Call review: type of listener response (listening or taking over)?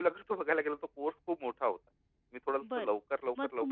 taking over